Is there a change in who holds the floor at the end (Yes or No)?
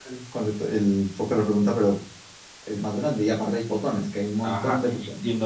Yes